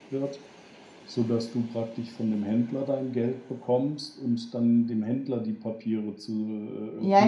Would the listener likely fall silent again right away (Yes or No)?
No